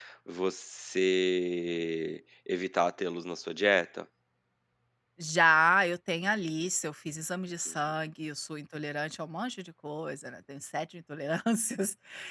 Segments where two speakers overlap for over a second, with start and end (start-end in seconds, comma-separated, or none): none